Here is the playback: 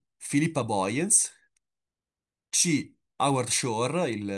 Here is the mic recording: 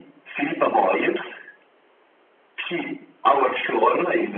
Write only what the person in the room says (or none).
none